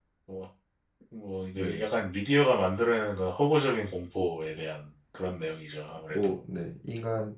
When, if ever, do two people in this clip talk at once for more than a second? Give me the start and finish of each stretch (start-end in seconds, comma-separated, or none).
none